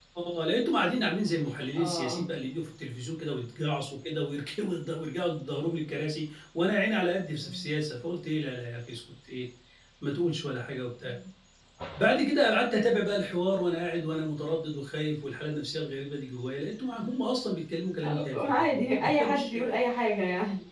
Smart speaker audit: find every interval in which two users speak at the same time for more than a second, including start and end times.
18.0-19.6

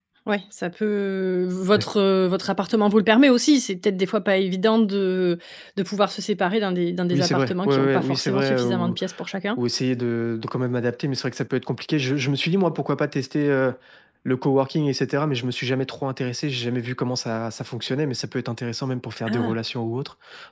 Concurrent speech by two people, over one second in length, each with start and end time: 7.1-9.0

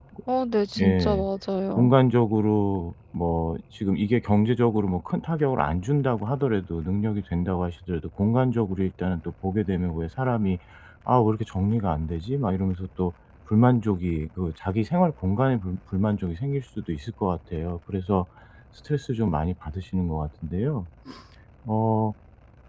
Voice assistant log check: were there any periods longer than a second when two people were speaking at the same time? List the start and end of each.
none

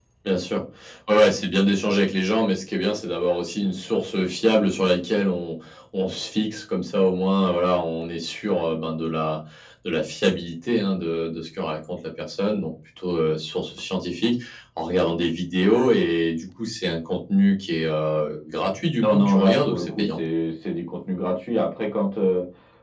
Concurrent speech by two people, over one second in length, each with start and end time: 19.0-20.2

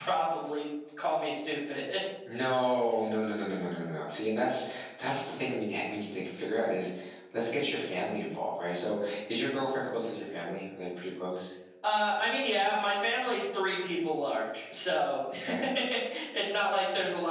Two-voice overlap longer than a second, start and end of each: none

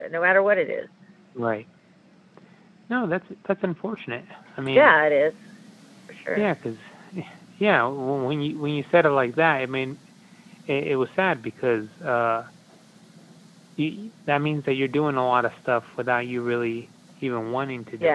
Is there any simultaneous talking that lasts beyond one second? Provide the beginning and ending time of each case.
none

